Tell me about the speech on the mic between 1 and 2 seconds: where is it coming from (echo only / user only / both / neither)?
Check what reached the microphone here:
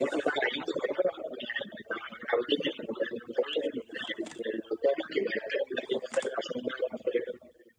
echo only